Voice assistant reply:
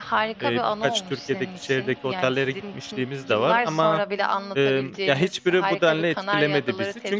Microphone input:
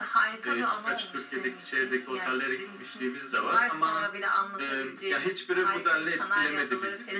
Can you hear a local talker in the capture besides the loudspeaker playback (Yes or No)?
No